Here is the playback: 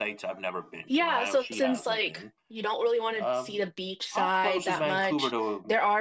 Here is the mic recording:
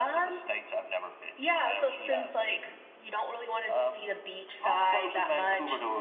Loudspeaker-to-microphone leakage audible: Yes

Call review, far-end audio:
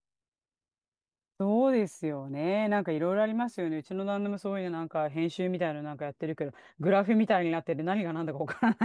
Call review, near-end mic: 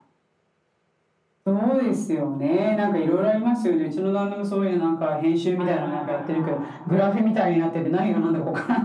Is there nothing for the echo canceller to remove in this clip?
No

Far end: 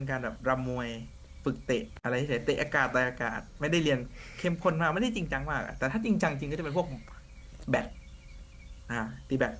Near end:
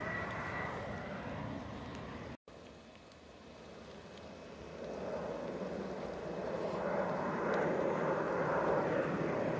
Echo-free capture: Yes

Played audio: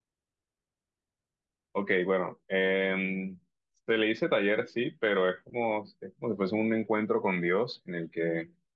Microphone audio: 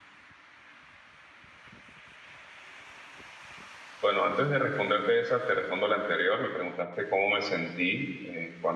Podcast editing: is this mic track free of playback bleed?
Yes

